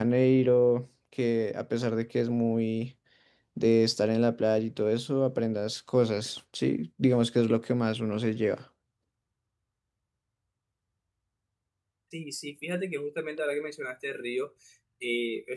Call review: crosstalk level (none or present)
none